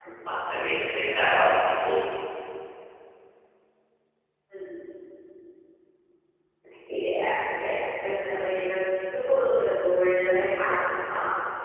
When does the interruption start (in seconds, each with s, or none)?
none